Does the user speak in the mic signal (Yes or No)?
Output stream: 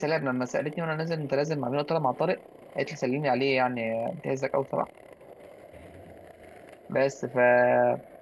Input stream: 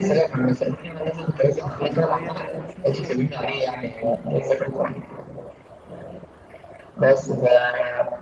Yes